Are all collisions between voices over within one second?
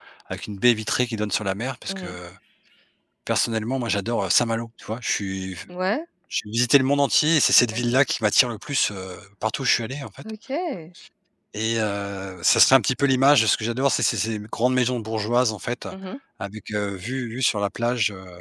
Yes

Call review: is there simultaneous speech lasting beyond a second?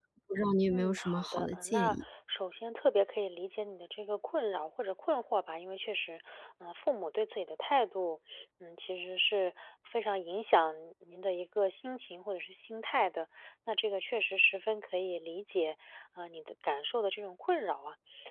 Yes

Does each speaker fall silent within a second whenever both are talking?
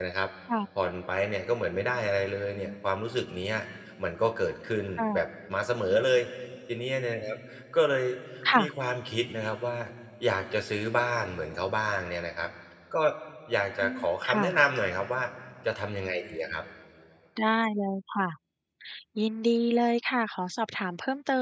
Yes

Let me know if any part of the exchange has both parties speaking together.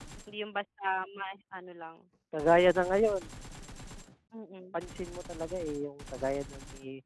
No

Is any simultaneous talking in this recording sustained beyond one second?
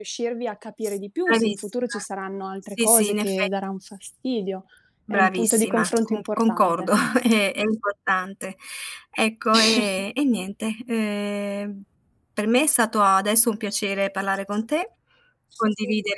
Yes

